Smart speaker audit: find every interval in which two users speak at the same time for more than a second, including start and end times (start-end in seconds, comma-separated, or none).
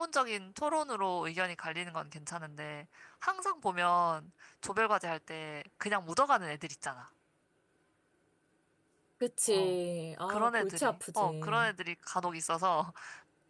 10.3-11.7